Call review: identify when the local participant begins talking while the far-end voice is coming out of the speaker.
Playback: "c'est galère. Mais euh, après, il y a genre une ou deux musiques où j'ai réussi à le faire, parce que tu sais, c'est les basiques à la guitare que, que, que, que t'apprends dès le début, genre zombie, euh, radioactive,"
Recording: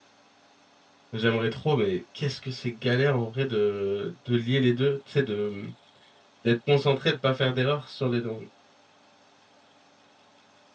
1.1 s

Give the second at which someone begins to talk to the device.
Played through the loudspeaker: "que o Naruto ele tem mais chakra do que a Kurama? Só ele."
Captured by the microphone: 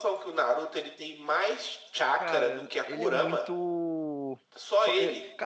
2.1 s

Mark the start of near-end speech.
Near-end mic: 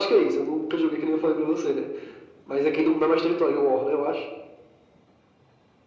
none

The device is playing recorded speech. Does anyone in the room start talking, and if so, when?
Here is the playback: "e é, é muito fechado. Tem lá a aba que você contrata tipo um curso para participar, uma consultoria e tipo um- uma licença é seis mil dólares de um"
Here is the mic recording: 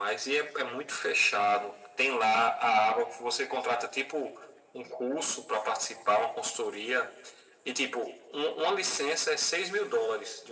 none

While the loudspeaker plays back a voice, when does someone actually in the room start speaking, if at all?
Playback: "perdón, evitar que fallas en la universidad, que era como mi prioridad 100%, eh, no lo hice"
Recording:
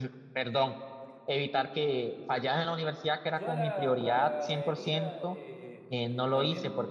3.3 s

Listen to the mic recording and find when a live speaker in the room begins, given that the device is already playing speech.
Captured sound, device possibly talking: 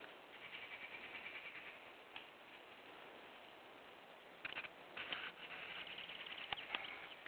none

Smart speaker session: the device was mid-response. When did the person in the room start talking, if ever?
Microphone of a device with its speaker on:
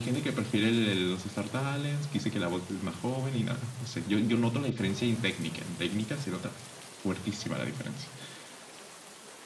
none

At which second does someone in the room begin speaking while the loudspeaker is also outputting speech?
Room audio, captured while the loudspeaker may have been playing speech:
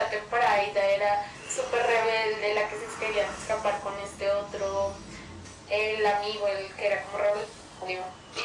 none

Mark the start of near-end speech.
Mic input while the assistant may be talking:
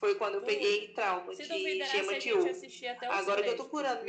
0.4 s

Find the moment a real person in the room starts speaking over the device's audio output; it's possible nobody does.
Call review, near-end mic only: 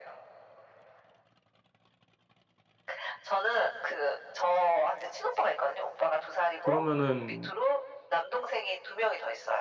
6.6 s

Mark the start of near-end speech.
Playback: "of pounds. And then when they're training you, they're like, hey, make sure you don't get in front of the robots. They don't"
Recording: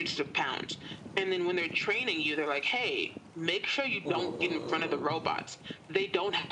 4.0 s

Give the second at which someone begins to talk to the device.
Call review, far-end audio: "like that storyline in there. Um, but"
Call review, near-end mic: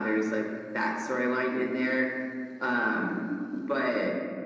none

